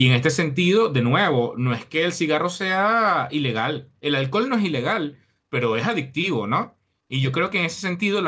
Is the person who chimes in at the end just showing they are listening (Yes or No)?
Yes